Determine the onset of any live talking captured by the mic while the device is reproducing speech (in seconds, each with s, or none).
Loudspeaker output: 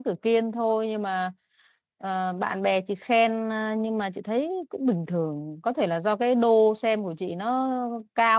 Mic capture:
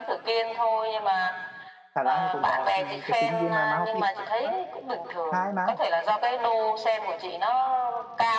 1.9 s